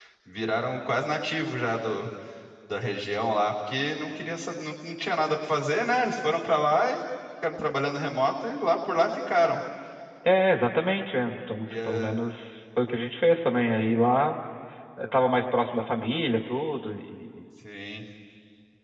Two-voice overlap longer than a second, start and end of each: none

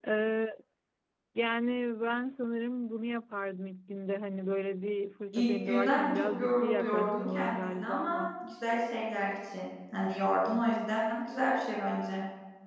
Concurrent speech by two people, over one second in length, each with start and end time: 5.3-8.2

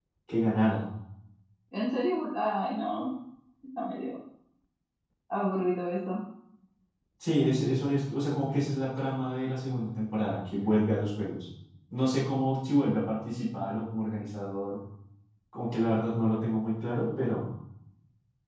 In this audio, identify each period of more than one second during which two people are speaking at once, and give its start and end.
none

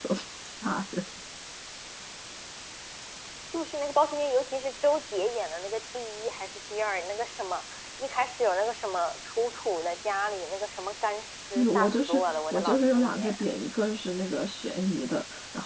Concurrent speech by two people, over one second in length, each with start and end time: 11.5-13.4

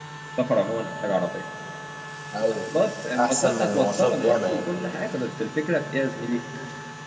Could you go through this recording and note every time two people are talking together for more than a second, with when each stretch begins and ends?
3.2-4.6

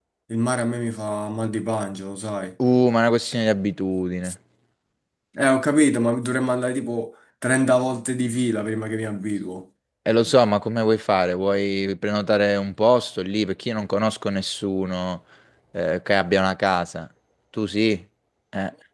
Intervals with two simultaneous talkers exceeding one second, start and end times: none

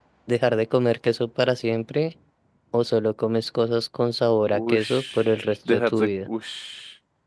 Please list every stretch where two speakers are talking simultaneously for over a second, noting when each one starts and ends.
4.5-6.3

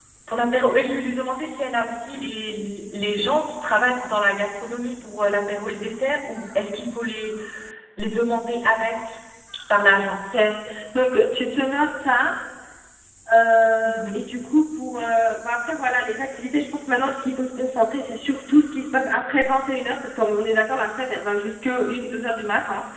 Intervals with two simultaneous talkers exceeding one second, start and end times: none

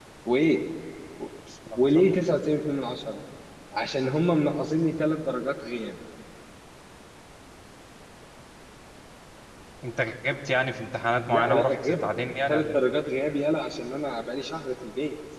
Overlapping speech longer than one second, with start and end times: 11.3-12.8

